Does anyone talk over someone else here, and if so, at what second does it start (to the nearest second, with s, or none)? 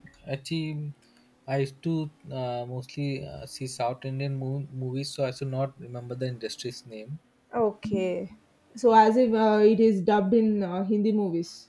none